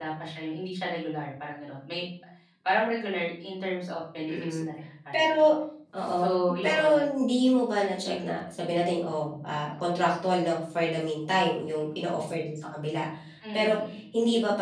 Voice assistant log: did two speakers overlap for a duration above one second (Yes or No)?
No